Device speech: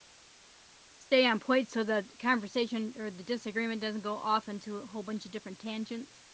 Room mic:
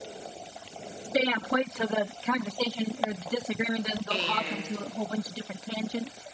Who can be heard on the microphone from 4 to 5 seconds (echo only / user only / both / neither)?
both